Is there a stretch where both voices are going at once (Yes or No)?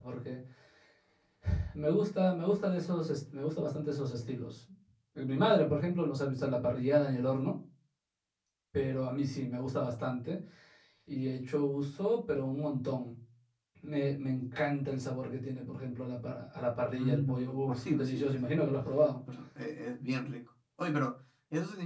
Yes